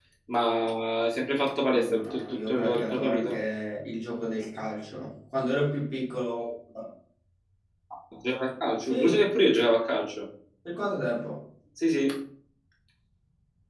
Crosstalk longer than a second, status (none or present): present